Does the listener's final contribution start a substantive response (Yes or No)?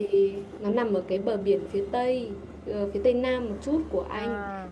No